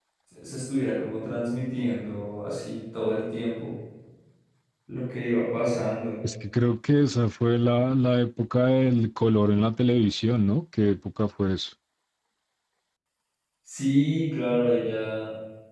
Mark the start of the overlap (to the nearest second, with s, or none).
none